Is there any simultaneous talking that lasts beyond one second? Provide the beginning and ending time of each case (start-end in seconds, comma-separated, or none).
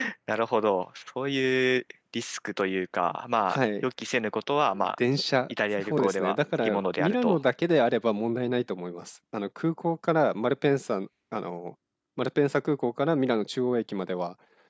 5.9-7.4